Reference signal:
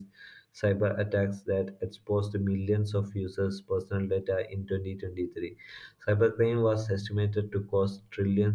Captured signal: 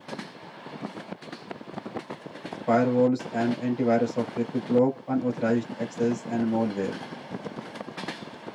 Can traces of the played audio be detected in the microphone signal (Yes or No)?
No